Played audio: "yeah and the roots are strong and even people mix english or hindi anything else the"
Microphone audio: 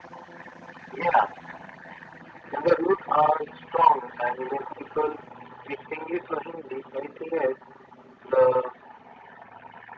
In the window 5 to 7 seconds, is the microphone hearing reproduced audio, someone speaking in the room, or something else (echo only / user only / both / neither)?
echo only